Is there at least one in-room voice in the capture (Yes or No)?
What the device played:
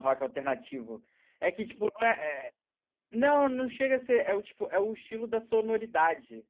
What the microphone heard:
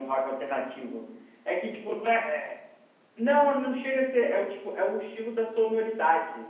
No